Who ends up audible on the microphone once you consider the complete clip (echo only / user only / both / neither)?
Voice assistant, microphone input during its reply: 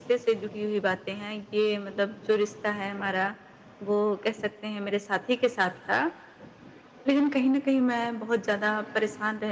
echo only